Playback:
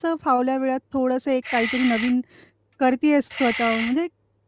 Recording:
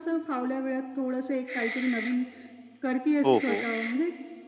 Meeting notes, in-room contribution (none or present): present